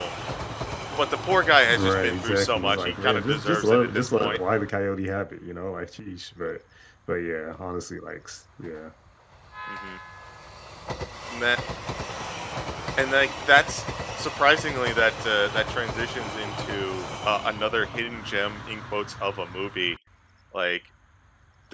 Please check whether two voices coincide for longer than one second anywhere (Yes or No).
Yes